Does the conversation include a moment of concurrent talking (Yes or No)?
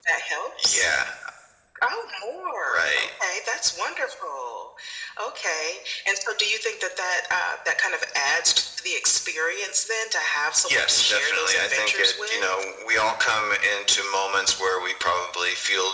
Yes